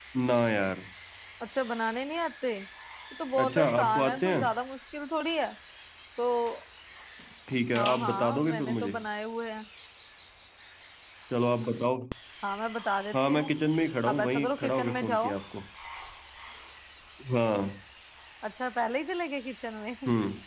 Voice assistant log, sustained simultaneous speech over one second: present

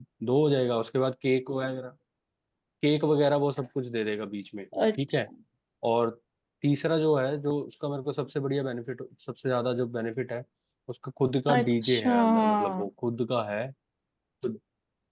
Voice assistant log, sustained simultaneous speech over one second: present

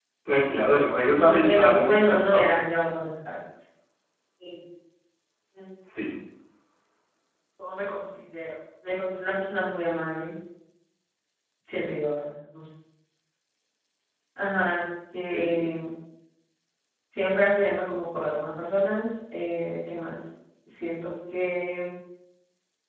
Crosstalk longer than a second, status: present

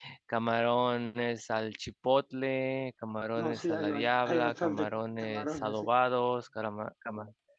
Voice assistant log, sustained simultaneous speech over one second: present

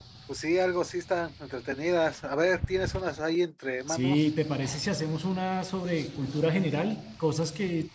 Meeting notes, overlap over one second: none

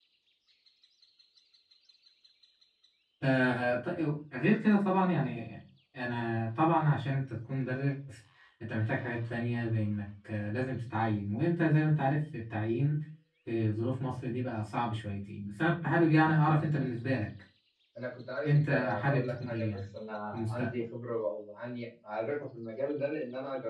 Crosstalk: present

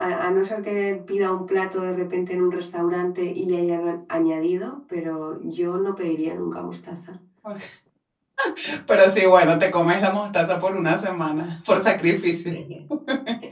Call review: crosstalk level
none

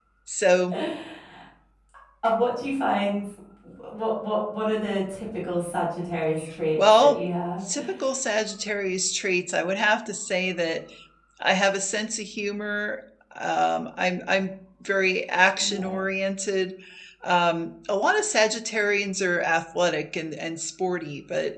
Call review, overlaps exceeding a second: none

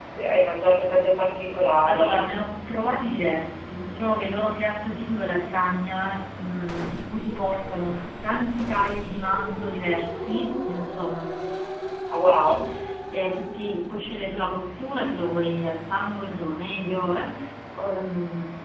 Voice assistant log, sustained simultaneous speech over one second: none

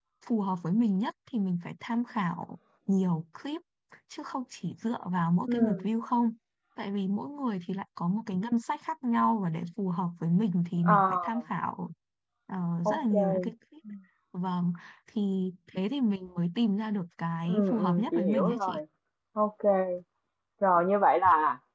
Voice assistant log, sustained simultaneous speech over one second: present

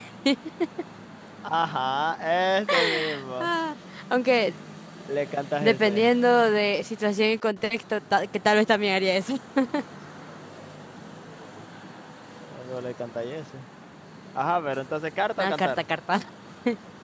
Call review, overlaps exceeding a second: none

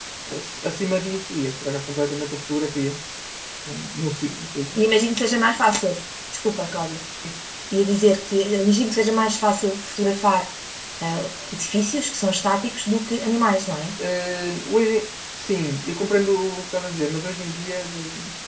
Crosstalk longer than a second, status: none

